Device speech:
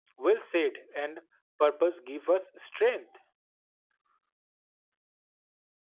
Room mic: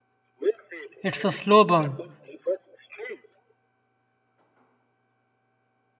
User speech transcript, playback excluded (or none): it's a slow burn.